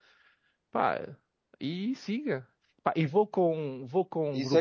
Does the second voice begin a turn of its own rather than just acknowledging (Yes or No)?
Yes